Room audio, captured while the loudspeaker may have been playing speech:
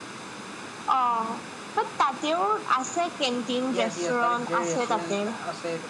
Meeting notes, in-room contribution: present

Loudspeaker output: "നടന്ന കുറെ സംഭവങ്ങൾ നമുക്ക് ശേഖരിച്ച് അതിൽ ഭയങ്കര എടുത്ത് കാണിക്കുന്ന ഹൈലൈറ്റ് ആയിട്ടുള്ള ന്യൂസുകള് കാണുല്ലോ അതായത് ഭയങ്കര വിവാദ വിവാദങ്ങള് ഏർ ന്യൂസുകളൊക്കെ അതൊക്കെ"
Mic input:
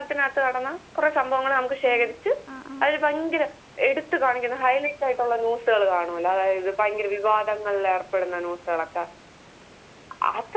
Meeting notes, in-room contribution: present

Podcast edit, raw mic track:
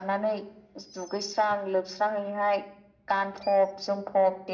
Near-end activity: none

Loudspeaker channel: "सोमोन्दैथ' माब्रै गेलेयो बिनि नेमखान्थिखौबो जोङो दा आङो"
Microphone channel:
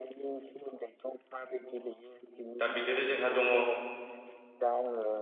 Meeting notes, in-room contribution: present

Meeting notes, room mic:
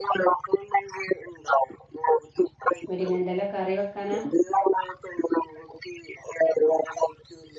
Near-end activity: present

